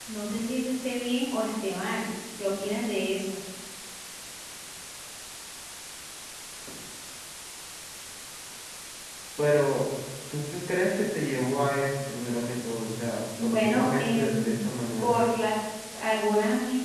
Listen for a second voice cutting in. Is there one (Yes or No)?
Yes